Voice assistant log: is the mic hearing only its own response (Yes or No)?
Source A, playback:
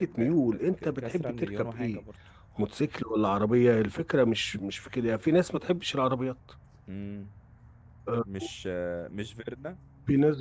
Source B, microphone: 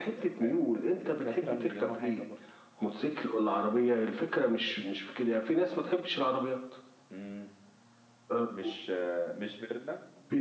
Yes